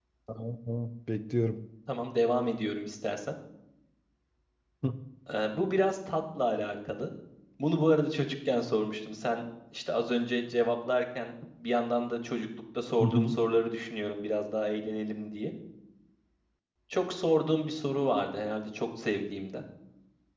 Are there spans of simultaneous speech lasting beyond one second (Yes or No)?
No